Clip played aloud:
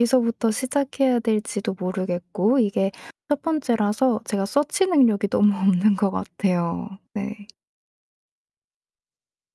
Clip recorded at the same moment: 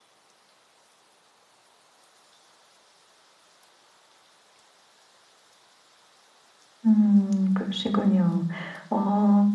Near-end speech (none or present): present